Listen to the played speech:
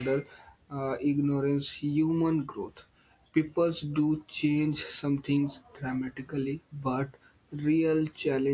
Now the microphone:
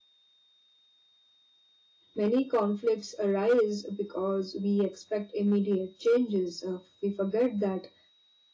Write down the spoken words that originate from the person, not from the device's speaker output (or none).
many conflicts arise because we expect immediate changes uh, we forget that